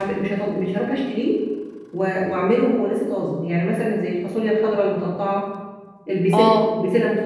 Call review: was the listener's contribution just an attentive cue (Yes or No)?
Yes